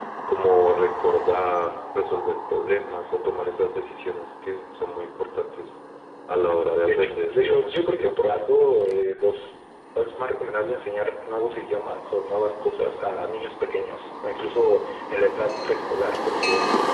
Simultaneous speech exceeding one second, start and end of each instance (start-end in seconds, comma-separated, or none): 6.8-8.2